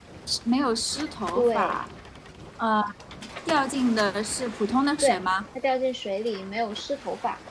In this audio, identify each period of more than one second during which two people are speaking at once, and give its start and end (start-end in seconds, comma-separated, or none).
none